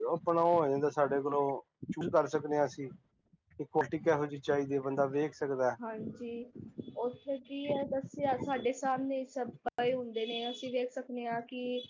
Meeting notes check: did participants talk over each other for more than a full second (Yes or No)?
No